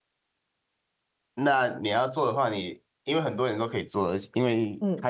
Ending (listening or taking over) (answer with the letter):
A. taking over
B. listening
B